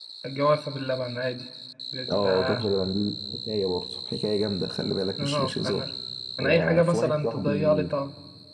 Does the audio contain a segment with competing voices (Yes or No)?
Yes